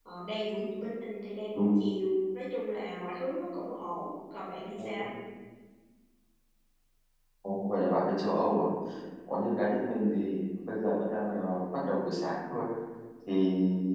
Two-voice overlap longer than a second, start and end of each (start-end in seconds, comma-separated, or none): none